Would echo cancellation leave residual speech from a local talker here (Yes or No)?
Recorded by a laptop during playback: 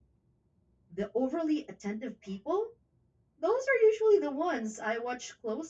Yes